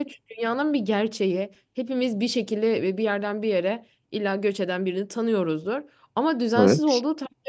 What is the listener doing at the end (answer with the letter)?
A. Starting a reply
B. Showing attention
B